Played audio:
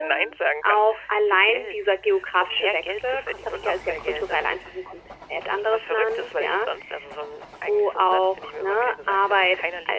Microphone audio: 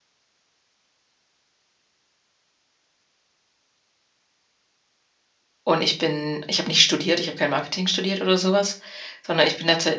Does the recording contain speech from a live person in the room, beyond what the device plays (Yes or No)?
Yes